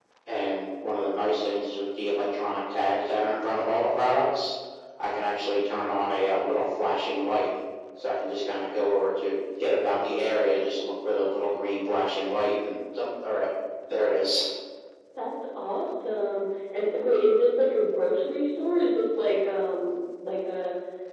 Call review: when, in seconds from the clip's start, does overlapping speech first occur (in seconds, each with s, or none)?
none